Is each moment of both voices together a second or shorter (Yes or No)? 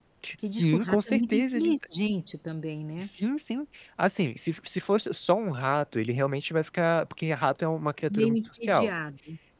No